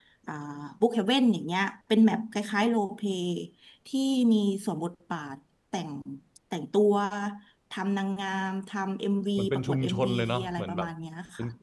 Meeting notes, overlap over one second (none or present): present